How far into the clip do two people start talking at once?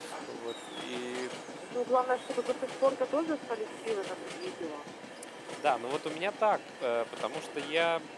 none

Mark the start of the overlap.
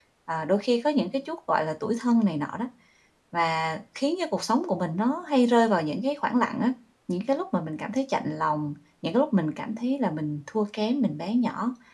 none

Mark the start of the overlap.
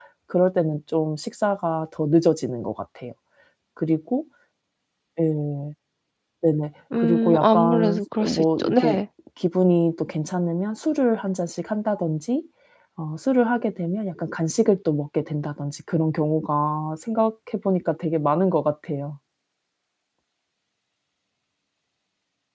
7.0 s

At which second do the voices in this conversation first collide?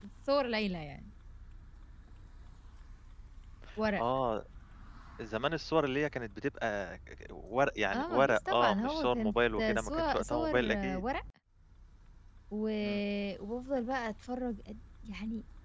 7.9 s

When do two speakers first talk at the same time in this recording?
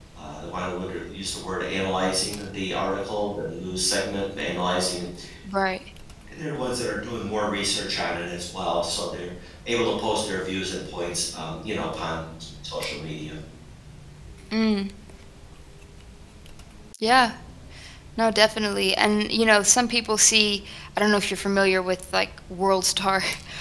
none

